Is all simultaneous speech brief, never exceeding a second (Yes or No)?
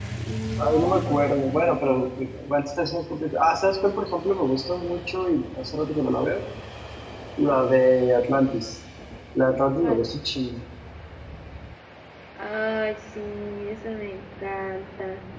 No